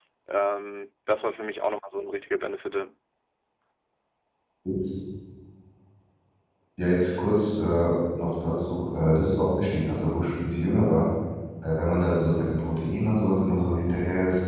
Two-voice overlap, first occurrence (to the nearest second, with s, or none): none